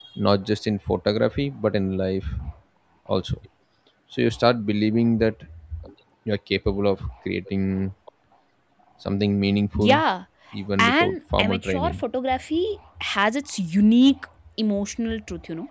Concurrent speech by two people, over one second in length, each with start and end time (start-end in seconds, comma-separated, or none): 10.8-12.0